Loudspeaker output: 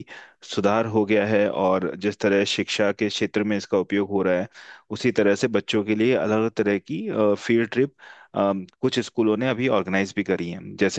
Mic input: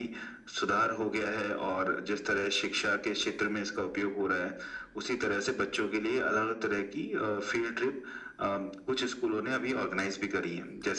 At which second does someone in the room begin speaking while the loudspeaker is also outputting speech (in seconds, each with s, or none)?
none